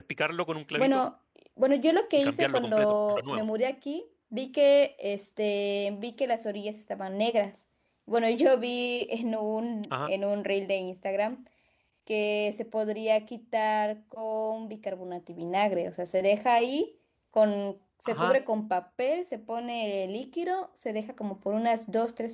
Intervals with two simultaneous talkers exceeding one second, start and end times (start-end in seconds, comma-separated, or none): 2.2-3.4